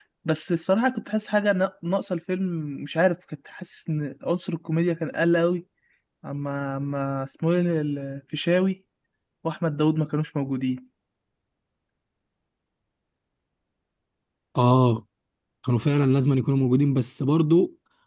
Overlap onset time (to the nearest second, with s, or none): none